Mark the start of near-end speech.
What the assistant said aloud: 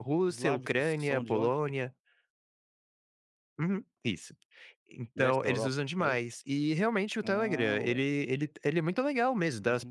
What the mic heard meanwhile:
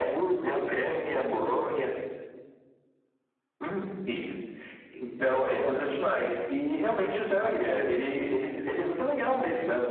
none

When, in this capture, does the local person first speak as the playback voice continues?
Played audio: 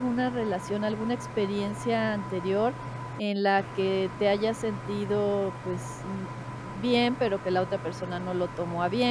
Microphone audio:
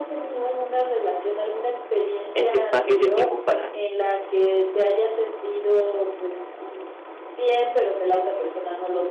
2.3 s

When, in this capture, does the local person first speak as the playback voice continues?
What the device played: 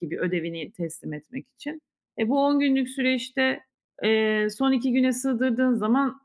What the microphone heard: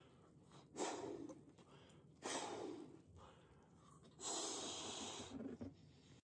none

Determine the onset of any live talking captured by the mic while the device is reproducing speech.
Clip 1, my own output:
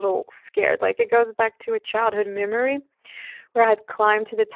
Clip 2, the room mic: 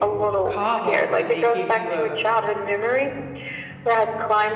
0.4 s

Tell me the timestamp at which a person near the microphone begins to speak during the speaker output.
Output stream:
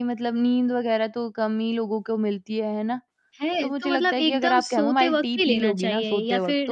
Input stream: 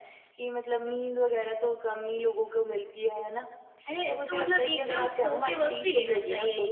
none

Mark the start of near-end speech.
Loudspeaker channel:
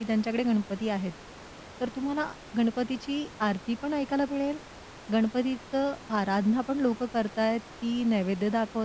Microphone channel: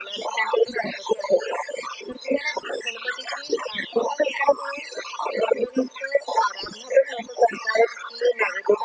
none

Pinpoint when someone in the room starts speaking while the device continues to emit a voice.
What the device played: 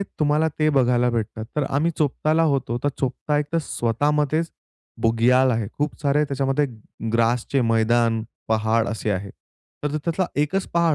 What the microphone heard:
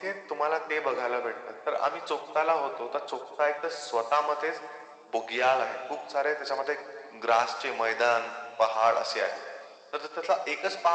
none

